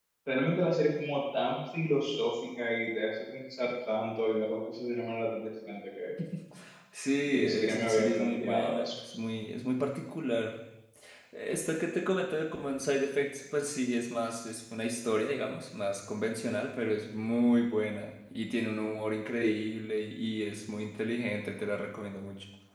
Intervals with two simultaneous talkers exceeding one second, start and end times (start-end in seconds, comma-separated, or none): 7.3-8.9